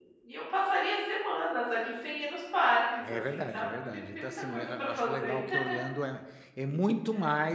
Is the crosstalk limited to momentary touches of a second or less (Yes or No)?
No